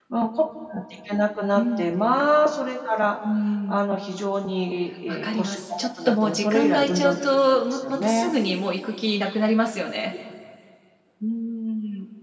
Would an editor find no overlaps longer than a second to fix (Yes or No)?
No